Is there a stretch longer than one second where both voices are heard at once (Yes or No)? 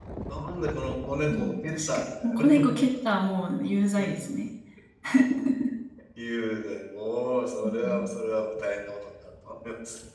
Yes